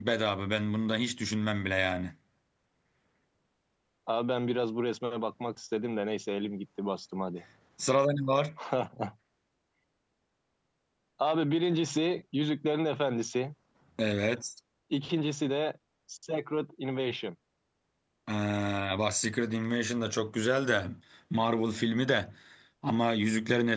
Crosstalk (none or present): none